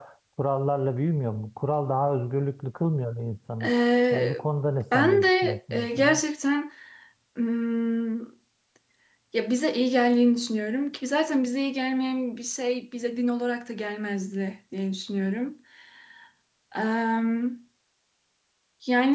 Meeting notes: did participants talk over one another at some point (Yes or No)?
Yes